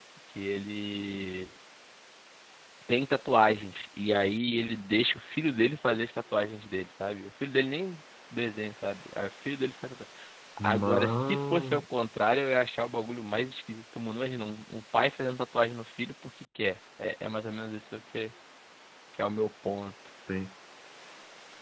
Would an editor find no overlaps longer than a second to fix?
No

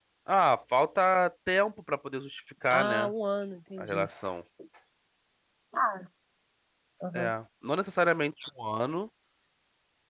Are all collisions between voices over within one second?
Yes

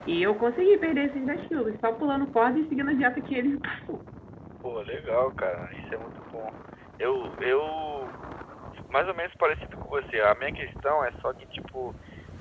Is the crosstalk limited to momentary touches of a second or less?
Yes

